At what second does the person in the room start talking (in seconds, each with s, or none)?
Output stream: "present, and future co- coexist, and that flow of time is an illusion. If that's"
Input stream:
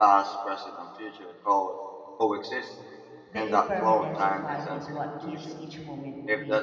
3.3 s